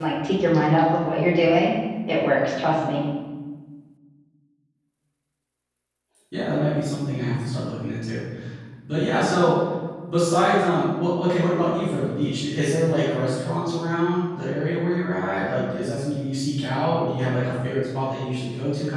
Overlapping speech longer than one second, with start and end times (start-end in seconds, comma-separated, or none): none